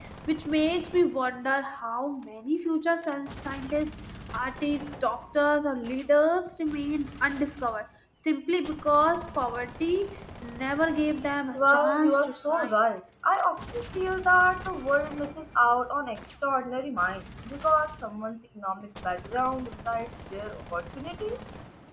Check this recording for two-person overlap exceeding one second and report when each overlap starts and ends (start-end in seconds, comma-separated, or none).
11.5-12.8